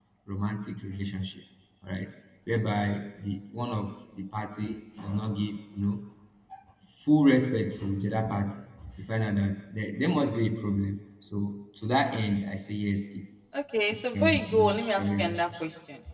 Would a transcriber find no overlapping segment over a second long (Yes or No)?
No